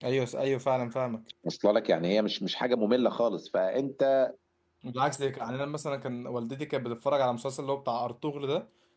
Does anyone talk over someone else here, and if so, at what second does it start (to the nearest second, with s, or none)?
none